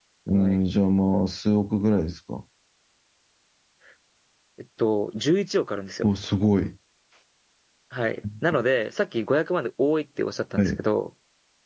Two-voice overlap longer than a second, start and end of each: none

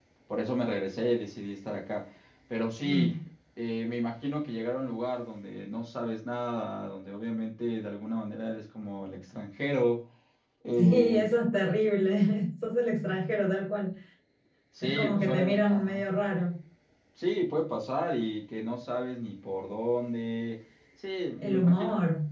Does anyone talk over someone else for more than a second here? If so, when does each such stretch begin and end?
14.8-16.1

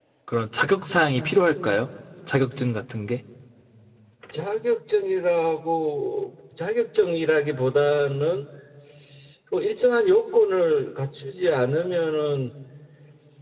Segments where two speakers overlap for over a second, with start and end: none

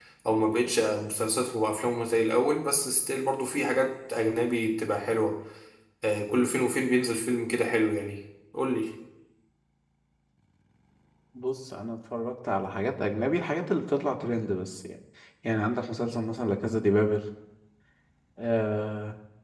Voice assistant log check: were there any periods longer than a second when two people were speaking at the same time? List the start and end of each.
none

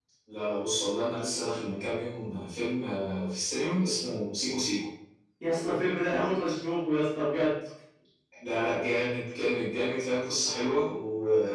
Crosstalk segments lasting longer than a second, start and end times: none

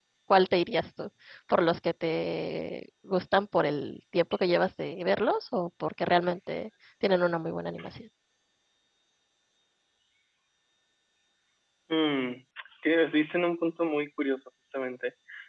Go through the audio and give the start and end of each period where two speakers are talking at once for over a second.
none

